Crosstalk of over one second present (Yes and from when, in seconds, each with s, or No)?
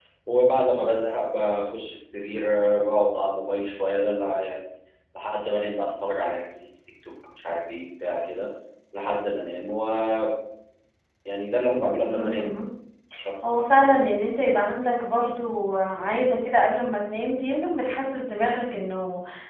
No